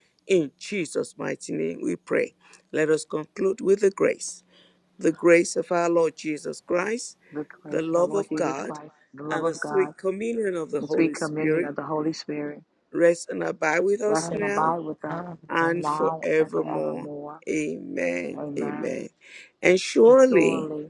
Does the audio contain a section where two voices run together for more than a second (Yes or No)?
Yes